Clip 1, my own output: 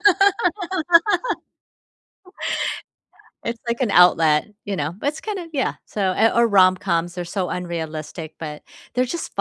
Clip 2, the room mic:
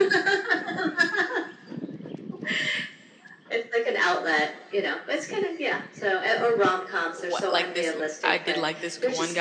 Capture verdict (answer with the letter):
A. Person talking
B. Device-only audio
A